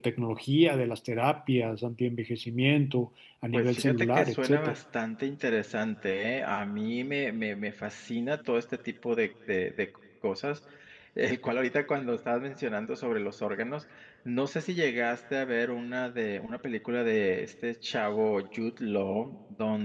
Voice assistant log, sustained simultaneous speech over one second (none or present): present